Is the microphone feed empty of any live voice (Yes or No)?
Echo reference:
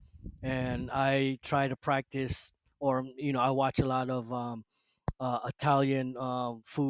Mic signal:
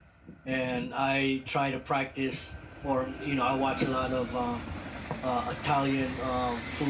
Yes